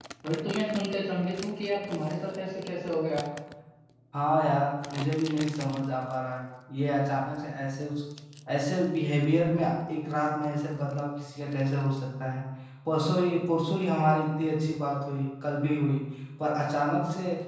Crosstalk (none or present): none